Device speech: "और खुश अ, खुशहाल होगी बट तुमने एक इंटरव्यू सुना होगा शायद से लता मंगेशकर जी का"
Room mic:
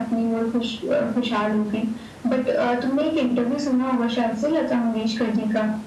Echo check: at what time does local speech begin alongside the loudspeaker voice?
none

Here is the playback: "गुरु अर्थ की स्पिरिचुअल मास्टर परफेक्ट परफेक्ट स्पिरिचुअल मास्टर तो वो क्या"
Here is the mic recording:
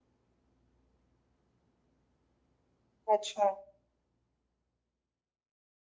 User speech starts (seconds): 3 s

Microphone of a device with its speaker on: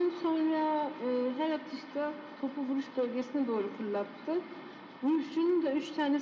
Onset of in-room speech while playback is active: none

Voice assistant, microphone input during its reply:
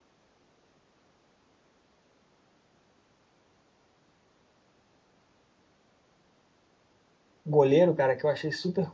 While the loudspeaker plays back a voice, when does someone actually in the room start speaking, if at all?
7 s

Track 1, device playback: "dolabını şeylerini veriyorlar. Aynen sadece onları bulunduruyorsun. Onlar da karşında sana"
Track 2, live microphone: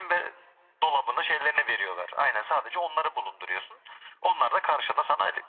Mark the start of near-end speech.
none

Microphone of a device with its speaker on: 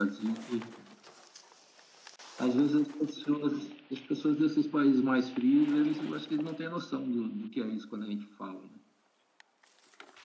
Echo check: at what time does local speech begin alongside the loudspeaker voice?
none

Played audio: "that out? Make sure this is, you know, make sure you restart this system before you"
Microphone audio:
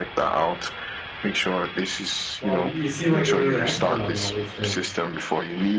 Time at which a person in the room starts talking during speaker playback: 2 s

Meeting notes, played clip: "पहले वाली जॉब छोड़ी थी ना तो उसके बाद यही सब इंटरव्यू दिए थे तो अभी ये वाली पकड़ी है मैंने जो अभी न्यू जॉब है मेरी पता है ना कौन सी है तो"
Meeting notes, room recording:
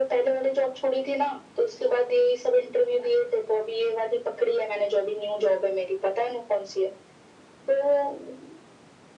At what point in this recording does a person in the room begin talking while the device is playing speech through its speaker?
none

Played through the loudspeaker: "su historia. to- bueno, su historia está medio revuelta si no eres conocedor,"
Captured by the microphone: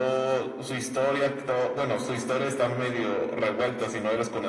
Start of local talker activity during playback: none

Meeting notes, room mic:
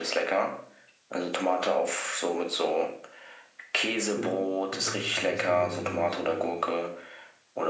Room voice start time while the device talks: 4 s

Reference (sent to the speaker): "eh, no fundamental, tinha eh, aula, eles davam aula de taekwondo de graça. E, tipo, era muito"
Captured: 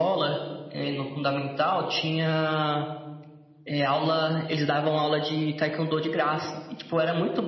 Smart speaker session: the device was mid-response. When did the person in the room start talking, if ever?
none

